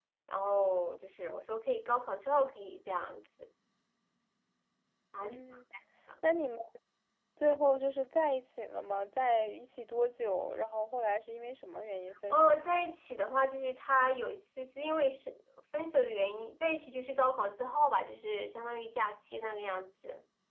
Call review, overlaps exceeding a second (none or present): none